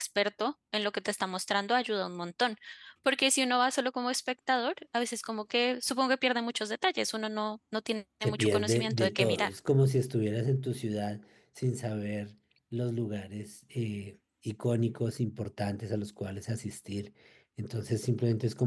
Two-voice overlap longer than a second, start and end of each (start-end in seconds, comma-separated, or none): 8.2-9.5